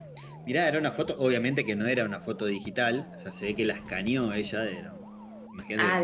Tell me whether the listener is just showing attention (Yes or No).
No